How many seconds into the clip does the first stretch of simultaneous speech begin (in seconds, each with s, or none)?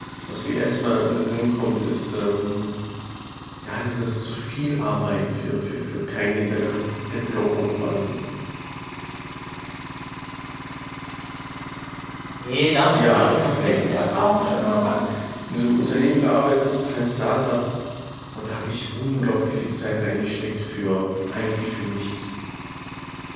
12.9 s